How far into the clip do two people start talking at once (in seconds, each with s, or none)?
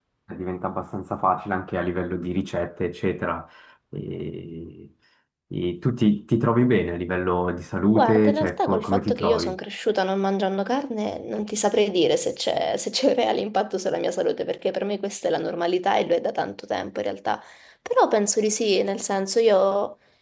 7.9 s